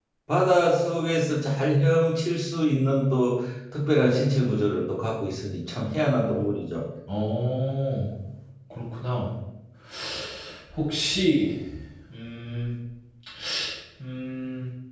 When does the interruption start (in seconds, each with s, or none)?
none